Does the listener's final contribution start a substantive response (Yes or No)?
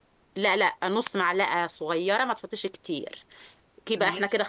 No